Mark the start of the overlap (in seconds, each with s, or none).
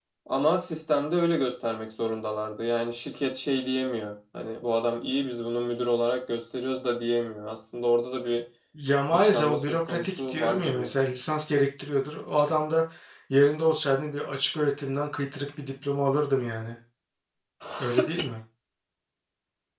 9.1 s